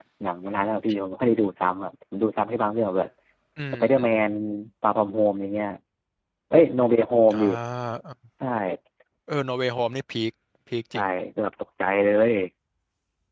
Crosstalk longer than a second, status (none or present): none